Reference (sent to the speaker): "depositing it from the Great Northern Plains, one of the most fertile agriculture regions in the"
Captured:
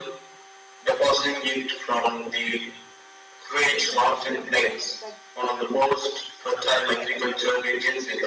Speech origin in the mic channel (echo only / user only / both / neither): both